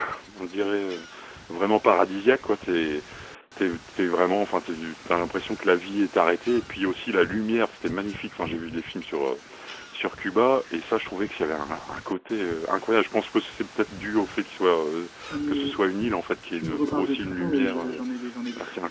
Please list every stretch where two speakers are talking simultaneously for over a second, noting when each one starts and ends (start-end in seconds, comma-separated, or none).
16.6-18.0